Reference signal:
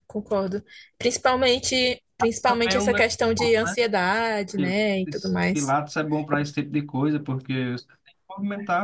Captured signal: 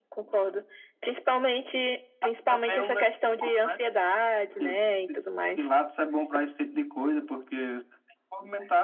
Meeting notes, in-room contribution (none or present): none